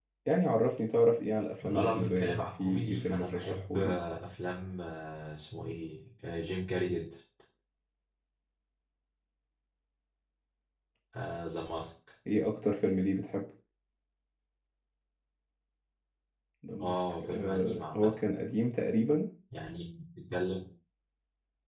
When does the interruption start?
1.6 s

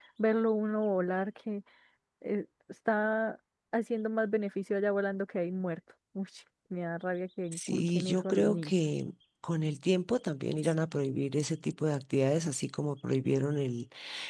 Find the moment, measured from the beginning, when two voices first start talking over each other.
7.5 s

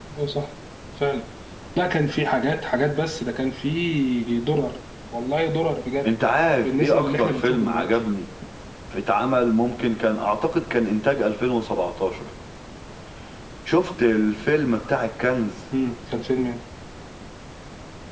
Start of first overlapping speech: 6.6 s

